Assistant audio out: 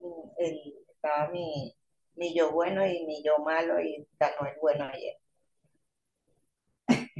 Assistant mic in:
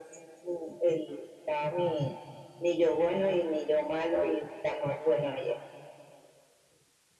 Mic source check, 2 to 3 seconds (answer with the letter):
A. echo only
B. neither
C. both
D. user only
A